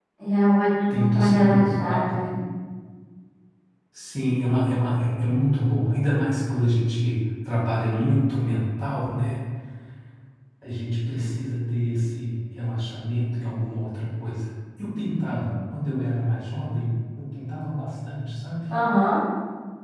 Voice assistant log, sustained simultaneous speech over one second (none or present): present